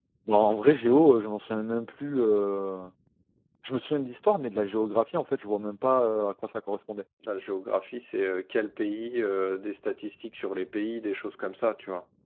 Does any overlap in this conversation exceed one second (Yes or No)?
No